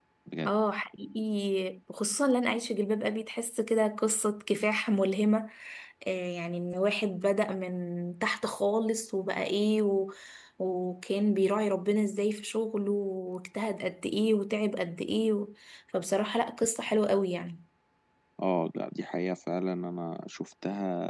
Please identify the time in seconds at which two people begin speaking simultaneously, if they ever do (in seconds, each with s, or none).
none